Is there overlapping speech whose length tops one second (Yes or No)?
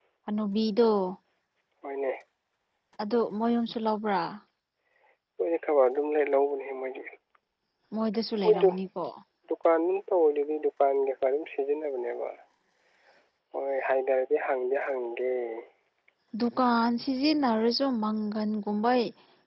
No